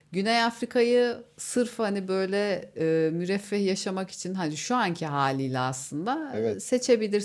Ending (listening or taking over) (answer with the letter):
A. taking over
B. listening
B